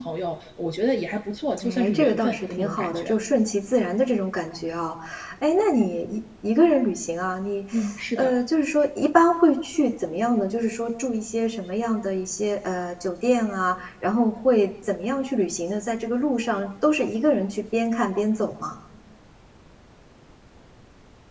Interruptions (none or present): present